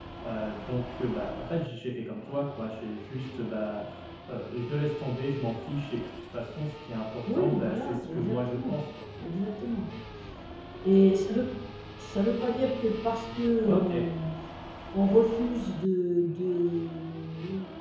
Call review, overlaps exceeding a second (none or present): present